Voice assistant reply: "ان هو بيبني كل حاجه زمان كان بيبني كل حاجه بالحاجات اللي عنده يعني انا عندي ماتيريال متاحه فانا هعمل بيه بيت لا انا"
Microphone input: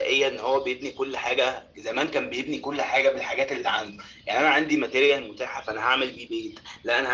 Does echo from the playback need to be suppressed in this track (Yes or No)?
Yes